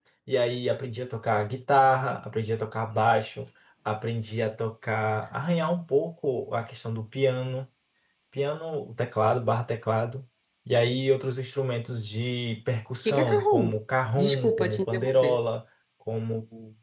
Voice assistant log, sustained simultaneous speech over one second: present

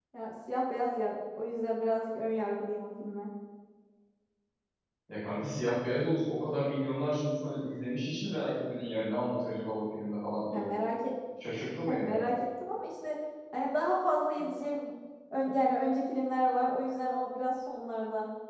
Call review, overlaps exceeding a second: none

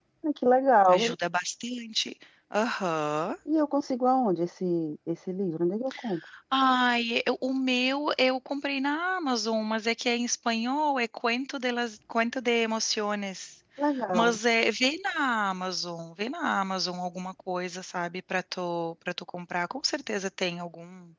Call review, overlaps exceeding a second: none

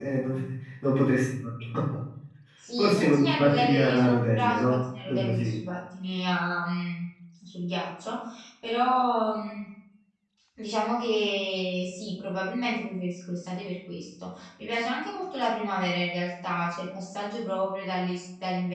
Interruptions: present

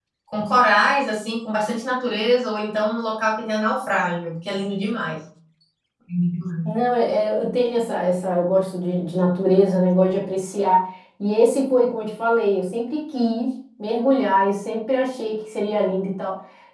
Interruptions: none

